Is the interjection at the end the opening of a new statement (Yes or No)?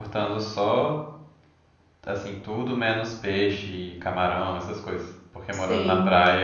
No